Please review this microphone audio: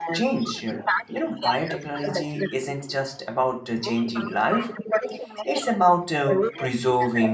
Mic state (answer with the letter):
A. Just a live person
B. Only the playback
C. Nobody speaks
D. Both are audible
D